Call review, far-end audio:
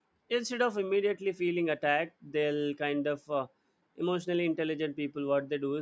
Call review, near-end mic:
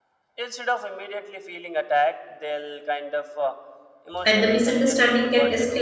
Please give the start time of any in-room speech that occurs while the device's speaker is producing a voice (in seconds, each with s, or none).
4.3 s